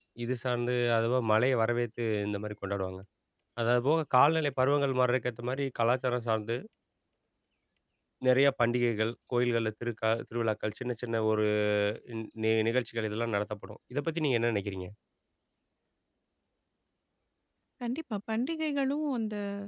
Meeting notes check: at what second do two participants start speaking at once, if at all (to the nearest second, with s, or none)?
none